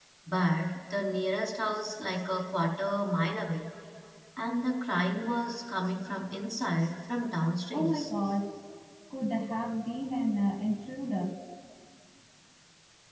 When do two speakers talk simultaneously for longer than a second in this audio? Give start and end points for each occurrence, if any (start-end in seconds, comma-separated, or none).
none